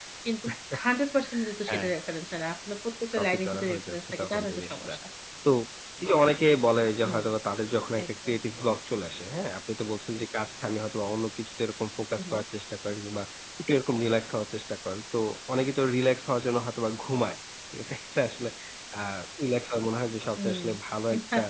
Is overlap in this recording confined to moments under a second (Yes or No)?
No